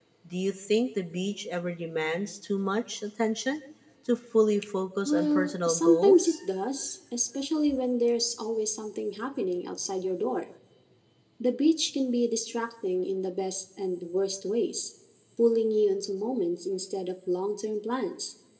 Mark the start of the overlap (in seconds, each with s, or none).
5.0 s